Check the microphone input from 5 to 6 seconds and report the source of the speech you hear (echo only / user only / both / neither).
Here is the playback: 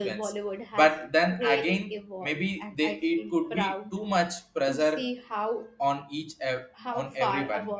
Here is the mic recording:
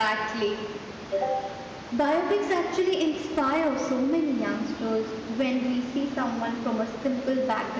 user only